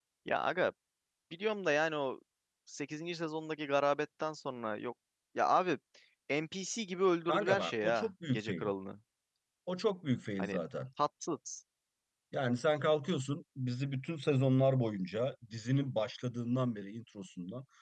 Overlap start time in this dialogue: 7.3 s

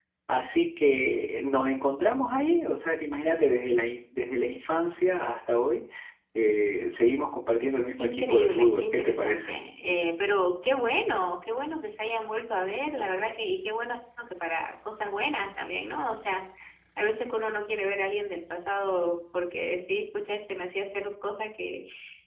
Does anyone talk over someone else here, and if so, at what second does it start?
8.0 s

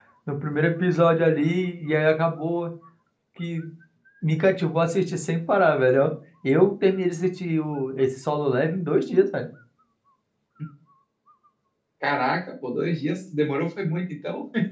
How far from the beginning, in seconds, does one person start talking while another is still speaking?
none

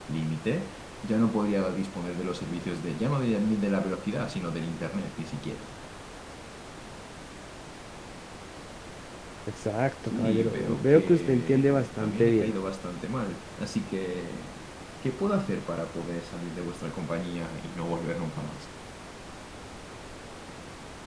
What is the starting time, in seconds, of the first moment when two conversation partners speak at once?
10.1 s

